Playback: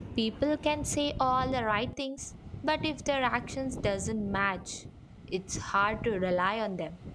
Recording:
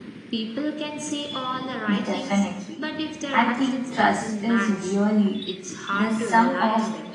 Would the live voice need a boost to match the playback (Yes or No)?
No